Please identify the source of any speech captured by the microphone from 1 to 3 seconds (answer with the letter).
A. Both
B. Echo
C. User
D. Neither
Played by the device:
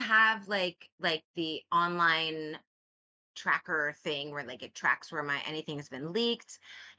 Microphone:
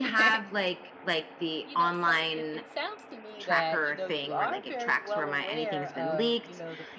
A